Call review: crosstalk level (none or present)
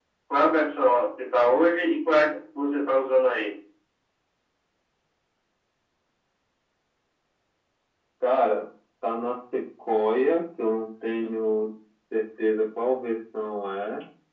none